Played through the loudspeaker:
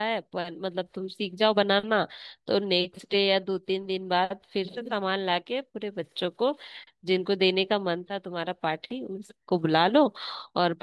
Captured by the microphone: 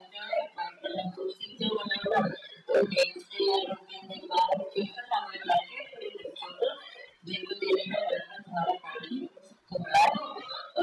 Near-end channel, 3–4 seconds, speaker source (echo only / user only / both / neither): echo only